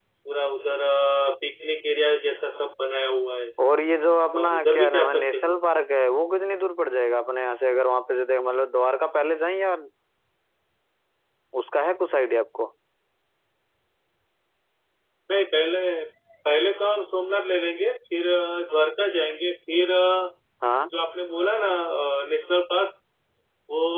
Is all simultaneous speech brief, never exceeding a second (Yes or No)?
No